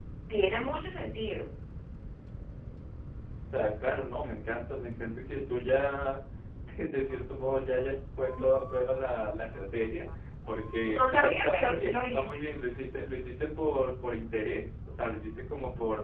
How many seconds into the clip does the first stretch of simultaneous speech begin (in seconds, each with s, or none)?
10.9 s